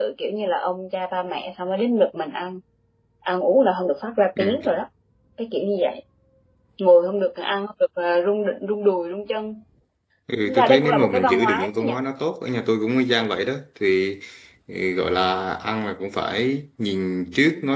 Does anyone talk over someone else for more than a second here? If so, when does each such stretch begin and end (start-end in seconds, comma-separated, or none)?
10.5-12.0